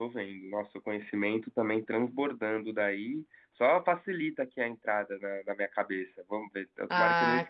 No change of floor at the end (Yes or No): No